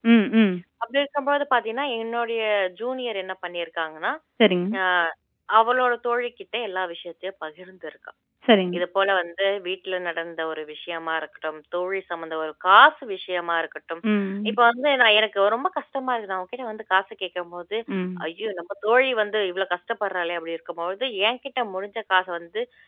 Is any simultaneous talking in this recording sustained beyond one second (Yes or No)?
No